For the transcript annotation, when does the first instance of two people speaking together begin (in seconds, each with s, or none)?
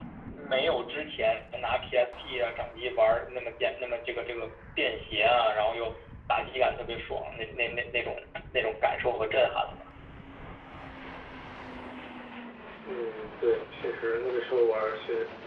none